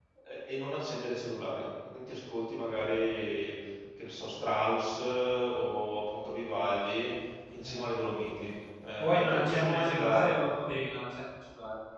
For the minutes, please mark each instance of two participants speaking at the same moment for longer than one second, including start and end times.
9.0-10.3

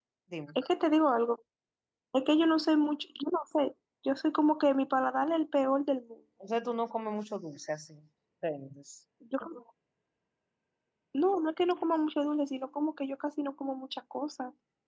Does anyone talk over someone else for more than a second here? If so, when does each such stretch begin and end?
none

